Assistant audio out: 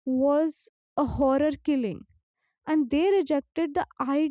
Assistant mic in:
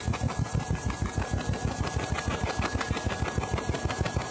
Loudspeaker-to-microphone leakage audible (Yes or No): No